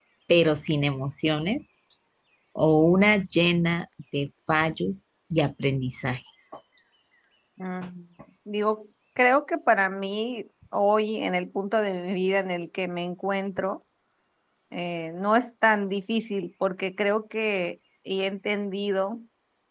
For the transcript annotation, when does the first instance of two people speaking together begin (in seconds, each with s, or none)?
none